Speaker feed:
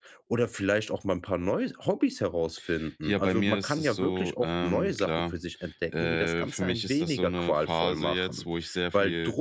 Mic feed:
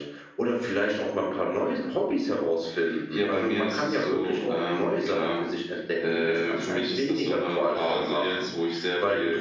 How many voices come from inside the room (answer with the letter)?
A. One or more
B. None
B